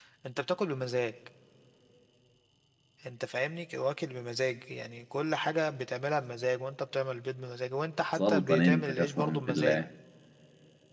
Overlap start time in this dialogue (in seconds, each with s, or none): 8.2 s